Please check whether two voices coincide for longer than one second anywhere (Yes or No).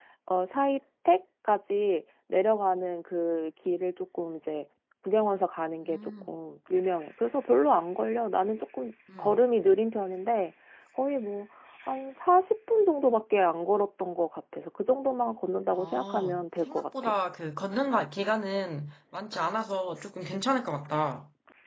Yes